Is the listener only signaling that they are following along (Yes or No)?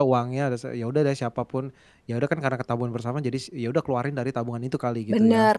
No